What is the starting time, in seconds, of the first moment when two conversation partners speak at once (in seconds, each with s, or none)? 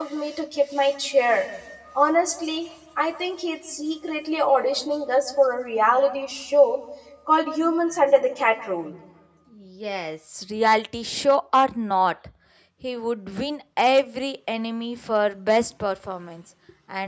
none